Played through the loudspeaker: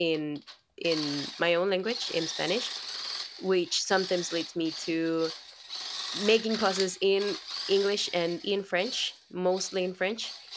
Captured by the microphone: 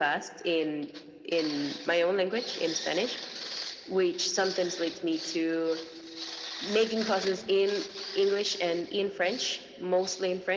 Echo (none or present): present